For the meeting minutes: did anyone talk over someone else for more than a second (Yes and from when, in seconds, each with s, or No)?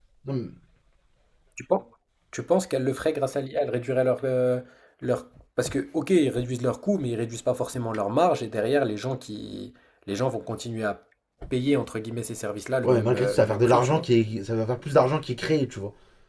Yes, from 12.8 s